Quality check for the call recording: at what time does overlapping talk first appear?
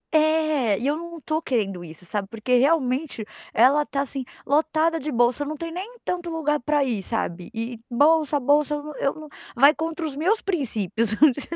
none

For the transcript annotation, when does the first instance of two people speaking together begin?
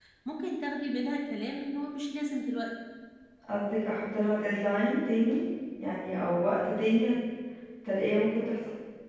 none

